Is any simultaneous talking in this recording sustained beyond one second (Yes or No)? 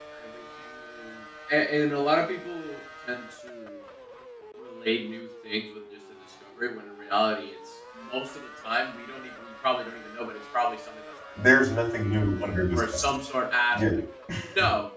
No